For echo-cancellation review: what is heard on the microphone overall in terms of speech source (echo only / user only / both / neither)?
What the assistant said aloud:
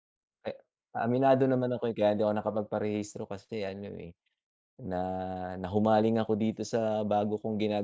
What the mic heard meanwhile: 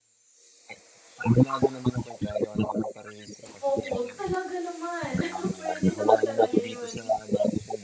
both